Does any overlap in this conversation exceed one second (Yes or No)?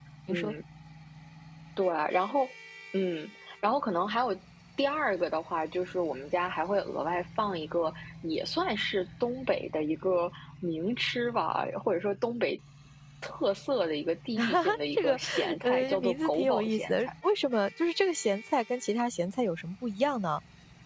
Yes